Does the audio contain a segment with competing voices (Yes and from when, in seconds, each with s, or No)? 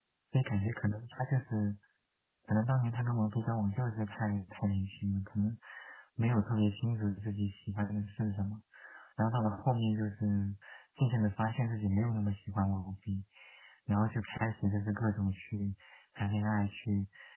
No